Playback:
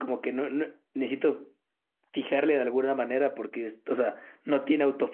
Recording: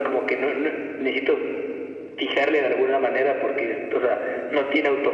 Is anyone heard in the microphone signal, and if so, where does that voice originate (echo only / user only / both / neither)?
echo only